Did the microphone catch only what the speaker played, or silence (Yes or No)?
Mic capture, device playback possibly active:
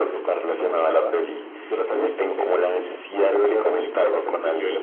Yes